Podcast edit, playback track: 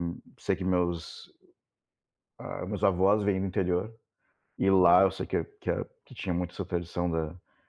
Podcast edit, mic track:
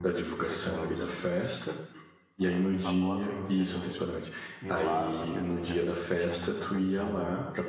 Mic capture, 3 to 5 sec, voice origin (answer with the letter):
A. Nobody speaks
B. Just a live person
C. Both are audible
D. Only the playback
C